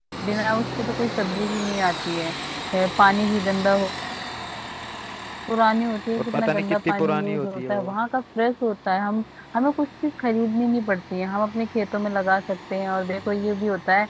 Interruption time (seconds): 6.2 s

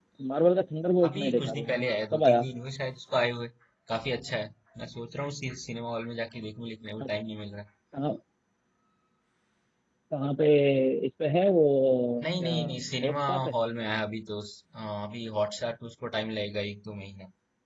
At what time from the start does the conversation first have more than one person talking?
1.0 s

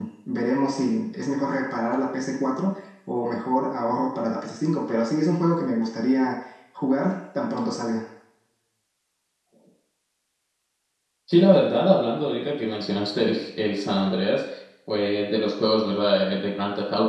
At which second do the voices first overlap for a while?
none

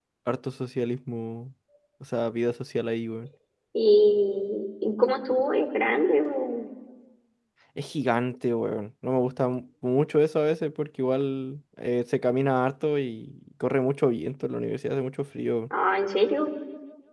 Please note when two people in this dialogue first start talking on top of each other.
none

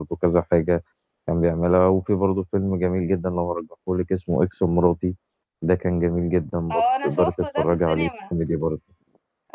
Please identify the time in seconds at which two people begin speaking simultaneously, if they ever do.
6.7 s

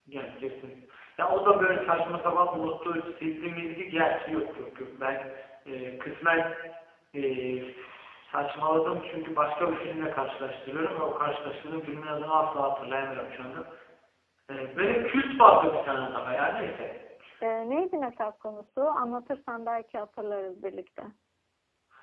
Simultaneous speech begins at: none

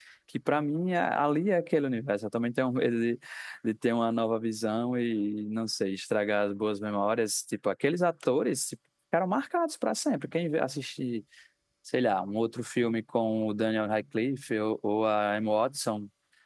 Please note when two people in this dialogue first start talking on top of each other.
none

